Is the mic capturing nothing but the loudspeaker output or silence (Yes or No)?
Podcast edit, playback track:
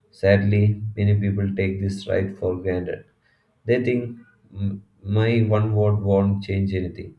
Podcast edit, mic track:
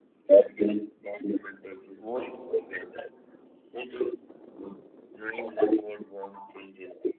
No